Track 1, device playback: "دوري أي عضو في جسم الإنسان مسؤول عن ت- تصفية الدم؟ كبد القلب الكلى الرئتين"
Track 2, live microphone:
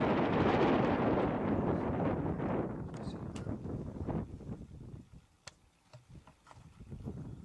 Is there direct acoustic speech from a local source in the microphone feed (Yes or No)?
No